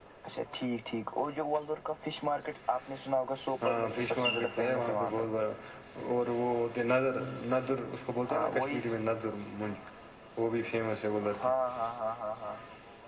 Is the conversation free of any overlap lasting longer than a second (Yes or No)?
No